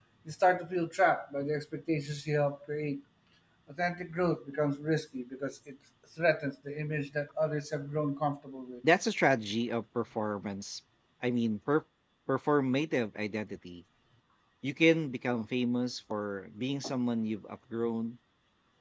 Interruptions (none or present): none